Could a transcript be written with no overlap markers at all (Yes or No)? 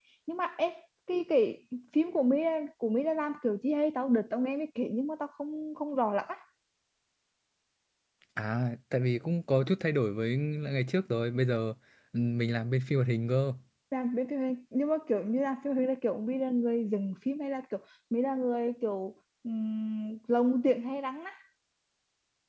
Yes